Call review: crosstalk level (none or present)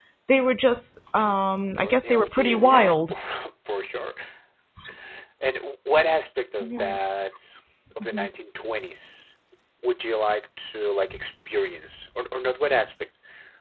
present